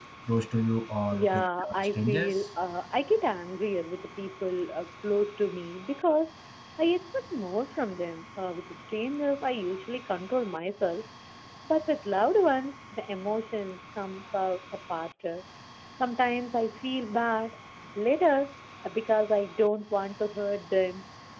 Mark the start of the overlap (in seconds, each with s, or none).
1.1 s